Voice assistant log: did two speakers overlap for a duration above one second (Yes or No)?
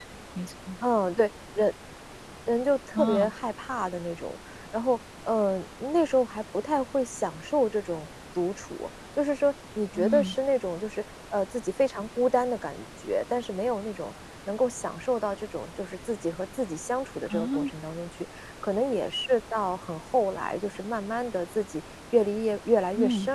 No